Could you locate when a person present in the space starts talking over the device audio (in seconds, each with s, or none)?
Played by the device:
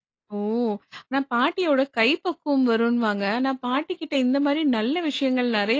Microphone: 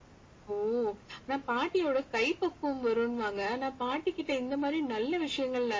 none